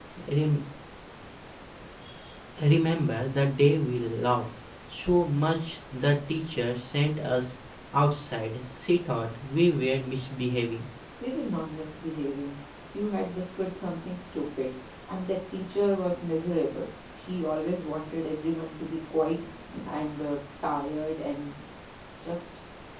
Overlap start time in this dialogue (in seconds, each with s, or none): none